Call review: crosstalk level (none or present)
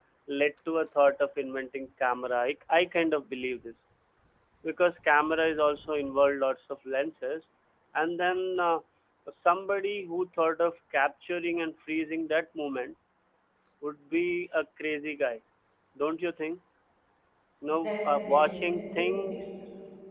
present